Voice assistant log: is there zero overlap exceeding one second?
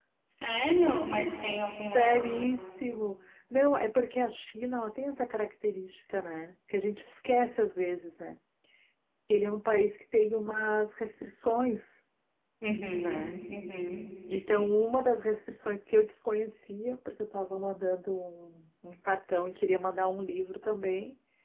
Yes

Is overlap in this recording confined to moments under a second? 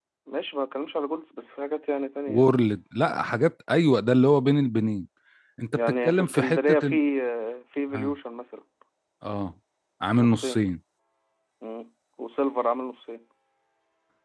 No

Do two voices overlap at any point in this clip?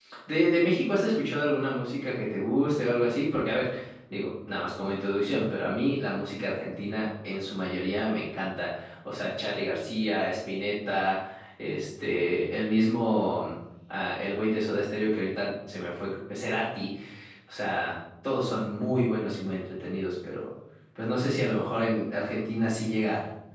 No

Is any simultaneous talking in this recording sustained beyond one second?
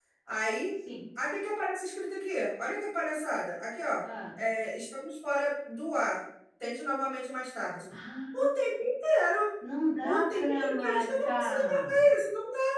Yes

